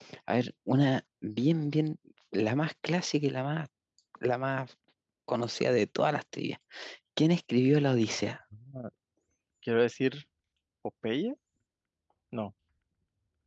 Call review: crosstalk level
none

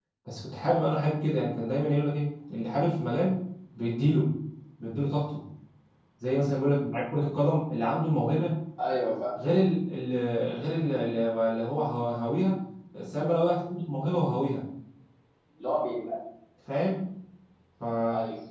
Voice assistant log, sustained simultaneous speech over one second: none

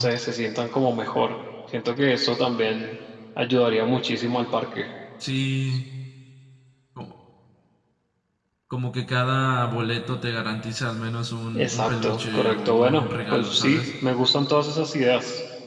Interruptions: present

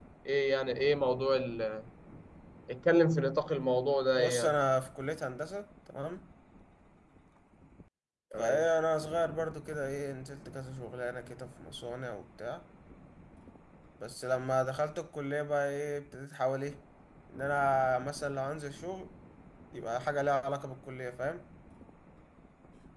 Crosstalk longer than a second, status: none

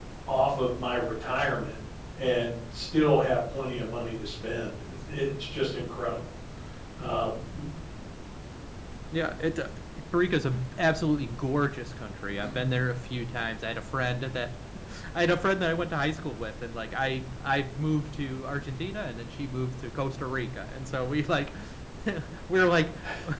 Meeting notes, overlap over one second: none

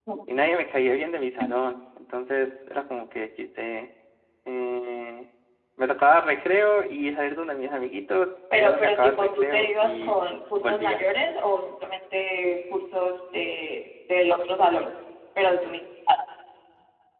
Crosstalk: present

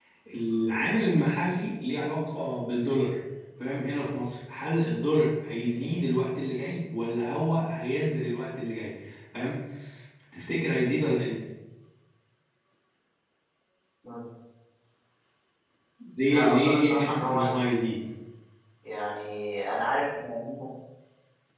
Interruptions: present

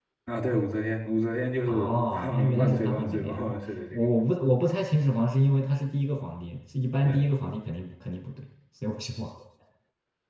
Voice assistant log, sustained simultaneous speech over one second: present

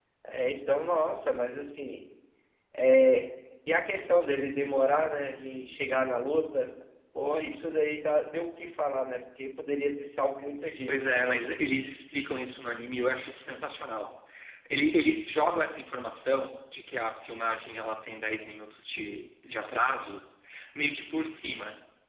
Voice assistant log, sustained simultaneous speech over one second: none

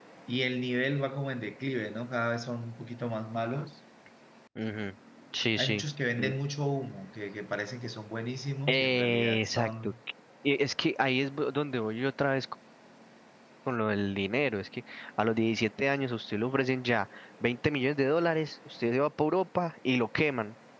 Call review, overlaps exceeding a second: present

